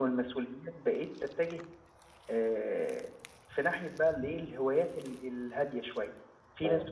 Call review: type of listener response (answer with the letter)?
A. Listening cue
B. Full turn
A